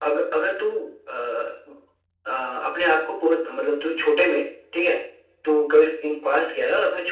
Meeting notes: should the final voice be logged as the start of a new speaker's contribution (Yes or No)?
No